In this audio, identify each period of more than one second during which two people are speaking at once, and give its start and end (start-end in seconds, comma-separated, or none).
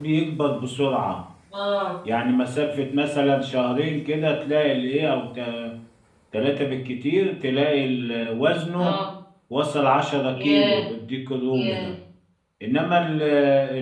none